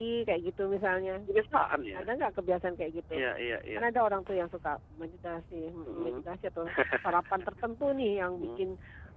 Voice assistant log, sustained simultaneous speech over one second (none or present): none